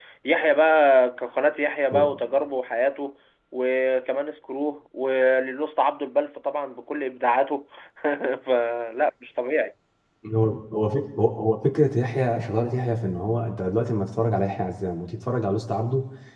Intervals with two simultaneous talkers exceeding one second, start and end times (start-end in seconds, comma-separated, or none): none